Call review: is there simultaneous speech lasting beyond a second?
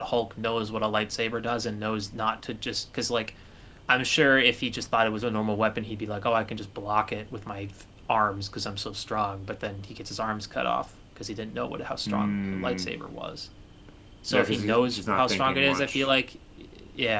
Yes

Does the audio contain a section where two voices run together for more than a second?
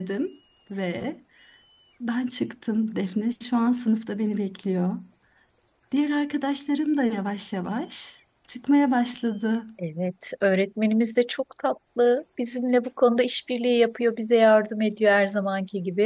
No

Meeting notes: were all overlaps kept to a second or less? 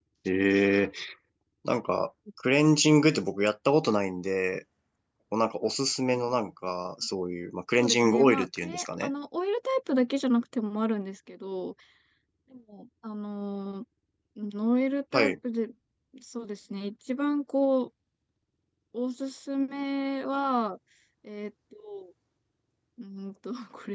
No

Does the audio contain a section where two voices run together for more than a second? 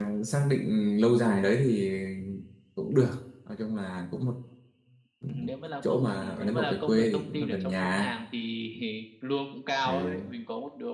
Yes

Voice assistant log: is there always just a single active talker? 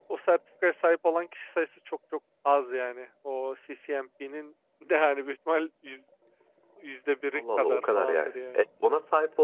No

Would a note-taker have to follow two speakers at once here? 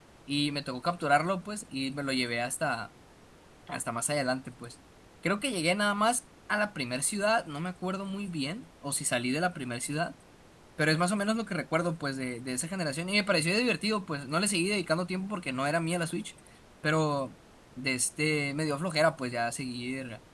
No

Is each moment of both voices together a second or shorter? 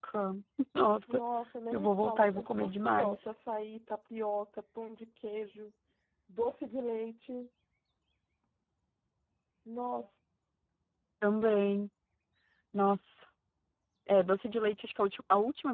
No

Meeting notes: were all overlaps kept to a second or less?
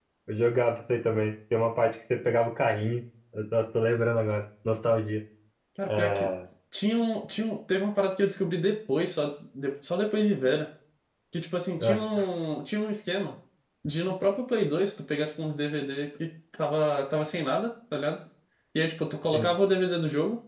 Yes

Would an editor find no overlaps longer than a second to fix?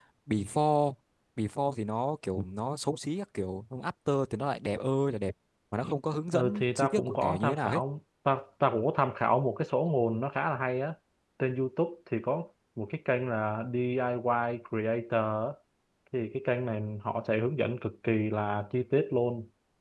No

